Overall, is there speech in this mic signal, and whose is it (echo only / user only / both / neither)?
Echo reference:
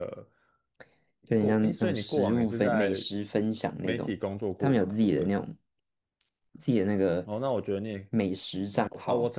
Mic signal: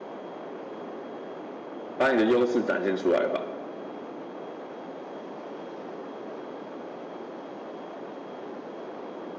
user only